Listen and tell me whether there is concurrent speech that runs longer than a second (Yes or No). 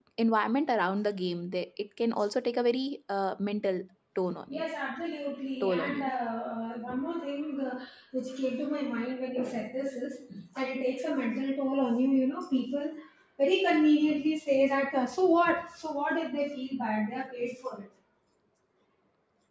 No